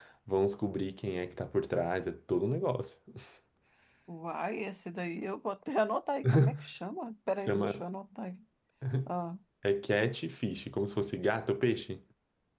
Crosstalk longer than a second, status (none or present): none